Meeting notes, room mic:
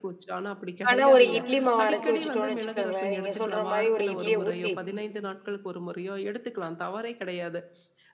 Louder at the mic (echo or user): user